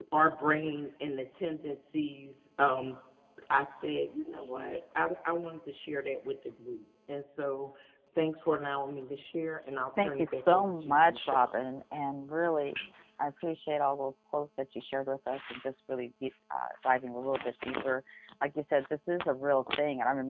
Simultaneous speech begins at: 10.0 s

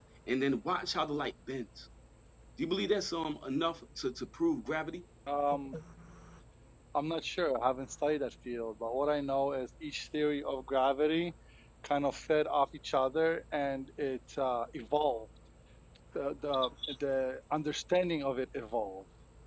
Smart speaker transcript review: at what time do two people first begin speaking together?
none

